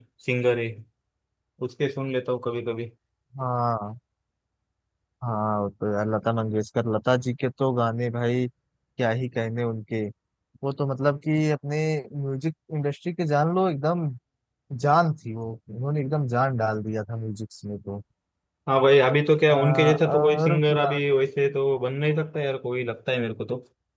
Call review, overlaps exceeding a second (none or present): present